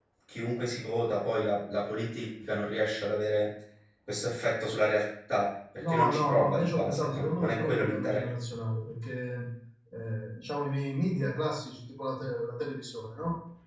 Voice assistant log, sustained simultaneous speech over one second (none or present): present